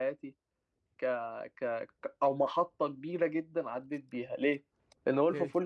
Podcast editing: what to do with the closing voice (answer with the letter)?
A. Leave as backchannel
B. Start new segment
A